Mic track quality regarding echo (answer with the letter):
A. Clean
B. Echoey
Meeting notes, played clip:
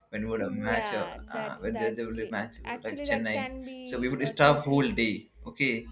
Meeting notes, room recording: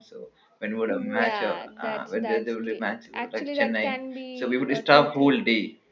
B